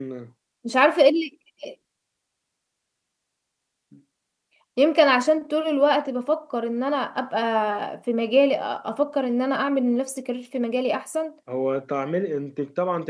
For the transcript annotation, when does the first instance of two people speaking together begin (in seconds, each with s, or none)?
none